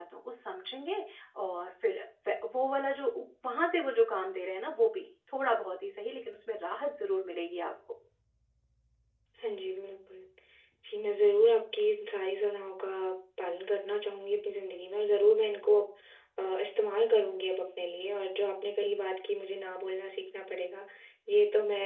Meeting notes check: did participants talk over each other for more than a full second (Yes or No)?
No